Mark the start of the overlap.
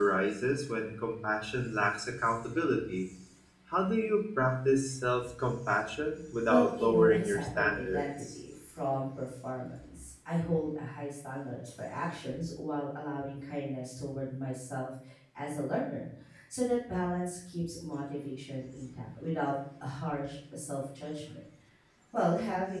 6.5 s

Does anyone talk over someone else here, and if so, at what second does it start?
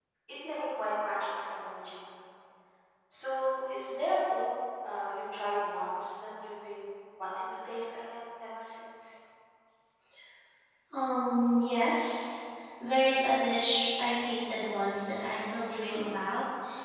none

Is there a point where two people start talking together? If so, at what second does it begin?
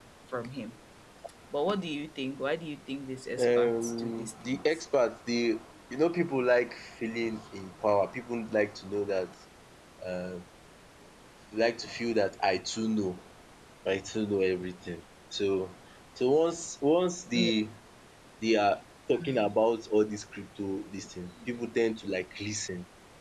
3.4 s

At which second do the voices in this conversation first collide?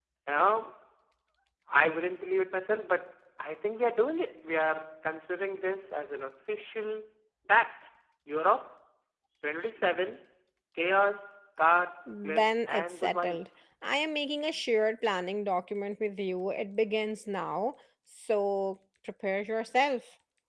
12.1 s

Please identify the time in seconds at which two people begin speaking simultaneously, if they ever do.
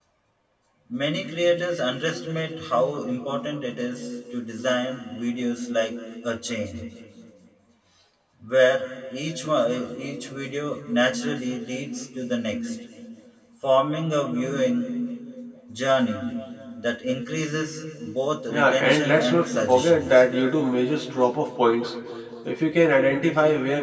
18.5 s

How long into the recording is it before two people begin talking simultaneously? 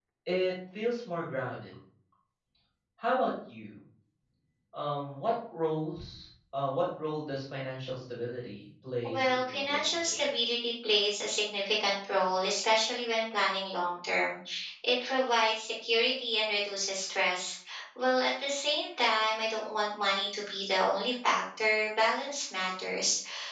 9.0 s

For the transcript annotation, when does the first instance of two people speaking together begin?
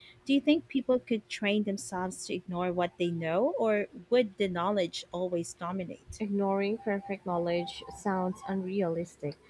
none

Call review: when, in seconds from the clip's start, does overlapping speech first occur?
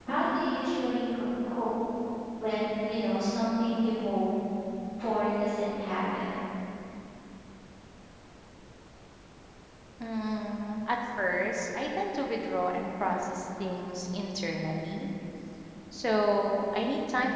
none

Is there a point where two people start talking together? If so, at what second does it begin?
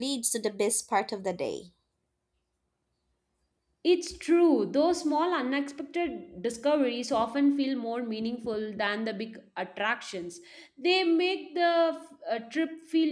none

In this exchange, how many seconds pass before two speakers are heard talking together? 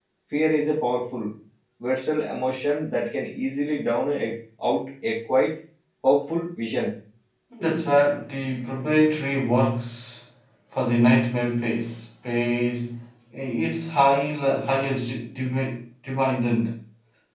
none

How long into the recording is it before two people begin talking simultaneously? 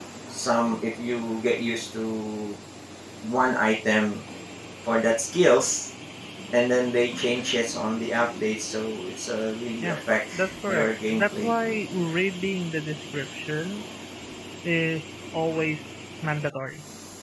9.8 s

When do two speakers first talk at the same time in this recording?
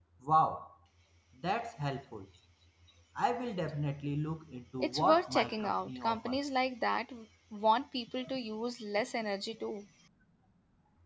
4.8 s

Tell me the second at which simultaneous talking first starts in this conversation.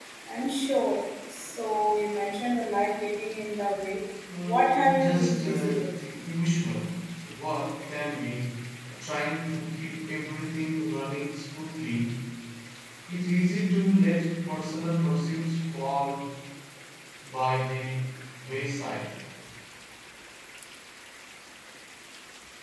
4.5 s

